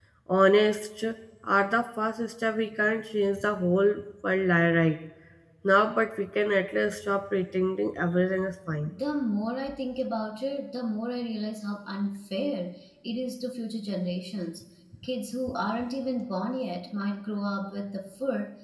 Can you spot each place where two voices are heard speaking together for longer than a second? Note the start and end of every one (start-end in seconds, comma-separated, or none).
none